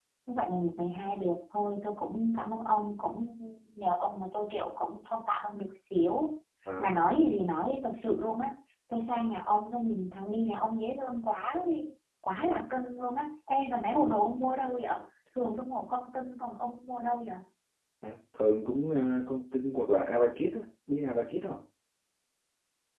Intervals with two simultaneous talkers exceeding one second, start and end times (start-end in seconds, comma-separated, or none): none